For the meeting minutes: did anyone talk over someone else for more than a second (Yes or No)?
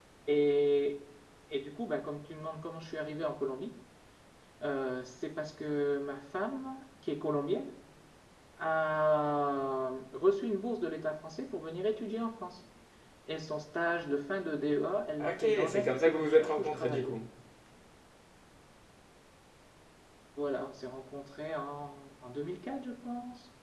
Yes